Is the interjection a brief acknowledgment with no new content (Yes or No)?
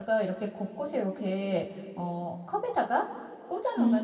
Yes